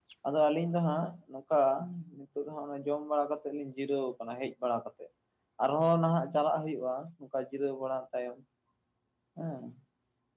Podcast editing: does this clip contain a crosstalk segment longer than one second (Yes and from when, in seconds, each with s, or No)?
No